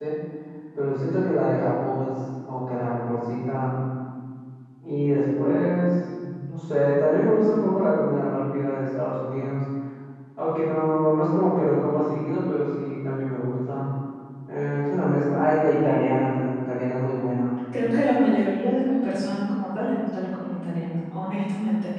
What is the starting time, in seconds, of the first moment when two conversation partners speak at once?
none

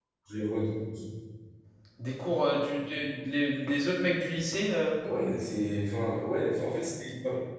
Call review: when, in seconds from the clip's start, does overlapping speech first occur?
none

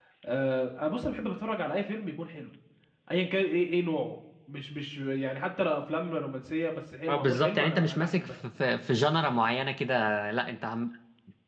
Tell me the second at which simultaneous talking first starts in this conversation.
7.1 s

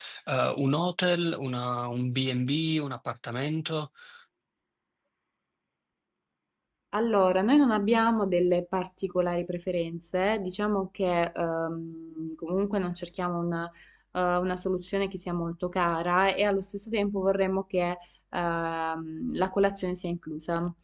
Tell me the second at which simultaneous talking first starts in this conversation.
none

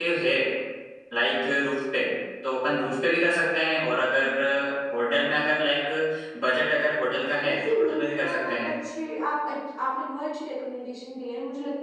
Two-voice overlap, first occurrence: 7.3 s

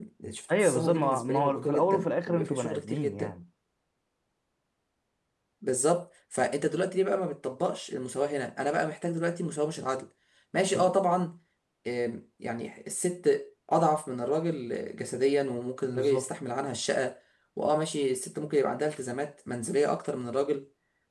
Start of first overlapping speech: 0.6 s

